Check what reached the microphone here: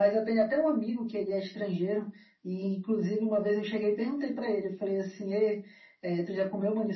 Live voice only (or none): none